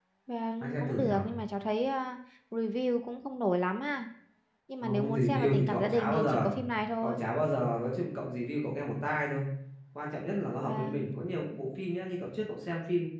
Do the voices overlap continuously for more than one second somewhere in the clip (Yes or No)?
Yes